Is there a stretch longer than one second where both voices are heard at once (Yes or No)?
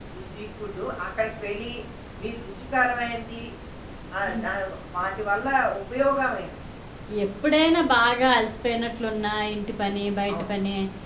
No